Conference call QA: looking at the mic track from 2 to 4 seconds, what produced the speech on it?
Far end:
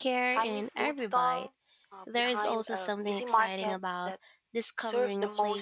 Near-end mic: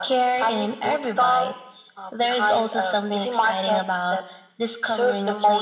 echo only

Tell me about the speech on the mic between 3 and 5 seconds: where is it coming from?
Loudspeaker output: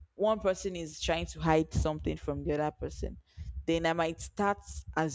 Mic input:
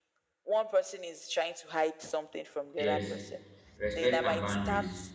both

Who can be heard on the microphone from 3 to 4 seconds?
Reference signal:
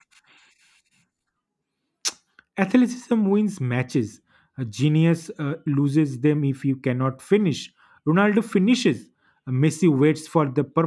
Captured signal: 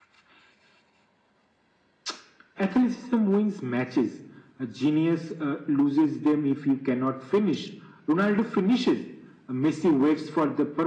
echo only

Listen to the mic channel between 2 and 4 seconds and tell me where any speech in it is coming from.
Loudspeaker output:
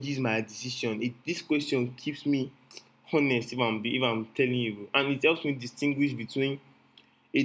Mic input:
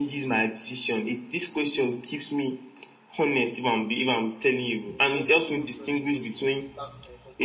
echo only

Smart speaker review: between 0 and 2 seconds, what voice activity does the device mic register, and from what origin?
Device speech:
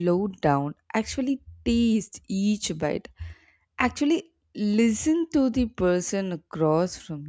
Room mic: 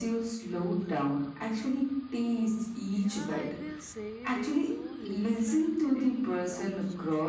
echo only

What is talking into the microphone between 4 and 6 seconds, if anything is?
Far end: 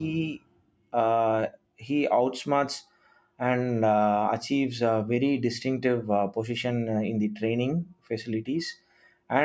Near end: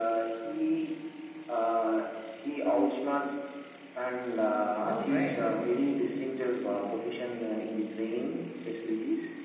both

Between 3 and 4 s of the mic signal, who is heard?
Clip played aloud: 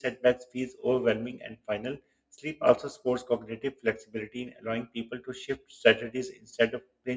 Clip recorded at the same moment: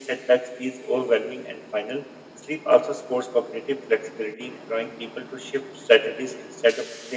echo only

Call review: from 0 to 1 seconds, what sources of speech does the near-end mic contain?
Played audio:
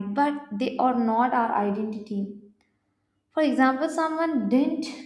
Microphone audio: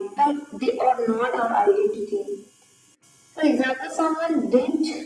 echo only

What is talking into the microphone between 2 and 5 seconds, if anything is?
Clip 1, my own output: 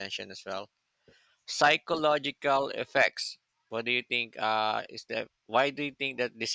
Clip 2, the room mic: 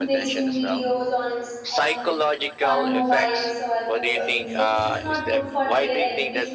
both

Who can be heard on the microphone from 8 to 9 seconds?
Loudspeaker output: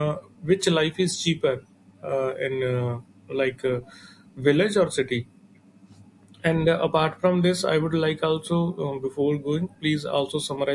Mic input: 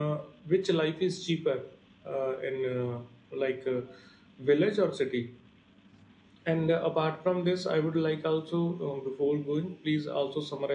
echo only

